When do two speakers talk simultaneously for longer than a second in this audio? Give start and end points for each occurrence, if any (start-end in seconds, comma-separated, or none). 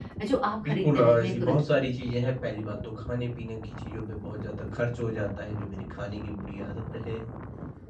0.6-1.9